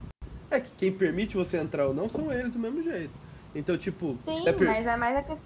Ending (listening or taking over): taking over